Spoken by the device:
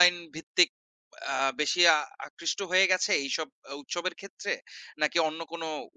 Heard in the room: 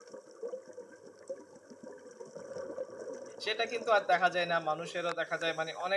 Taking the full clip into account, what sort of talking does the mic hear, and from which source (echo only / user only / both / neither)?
user only